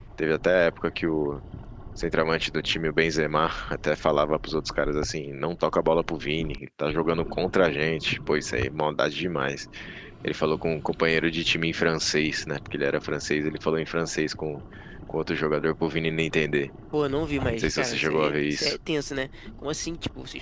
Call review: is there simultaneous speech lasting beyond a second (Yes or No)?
Yes